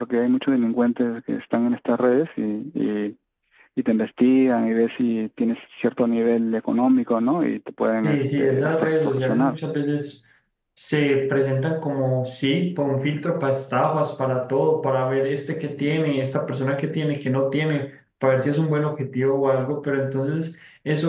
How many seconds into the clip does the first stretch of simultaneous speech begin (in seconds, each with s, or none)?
8.0 s